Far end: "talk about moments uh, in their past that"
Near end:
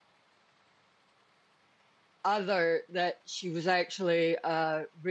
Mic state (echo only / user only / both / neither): user only